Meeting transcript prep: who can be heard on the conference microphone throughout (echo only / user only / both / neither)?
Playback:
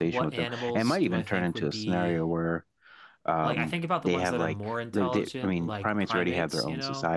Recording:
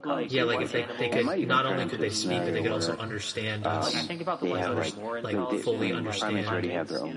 both